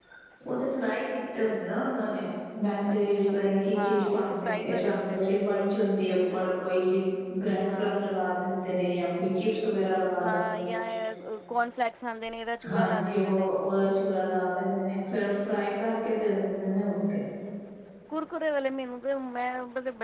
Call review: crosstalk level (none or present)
present